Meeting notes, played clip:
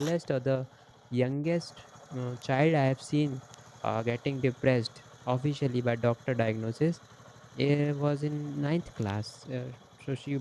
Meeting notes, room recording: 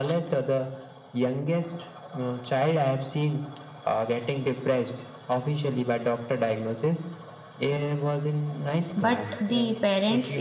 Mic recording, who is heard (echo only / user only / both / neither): both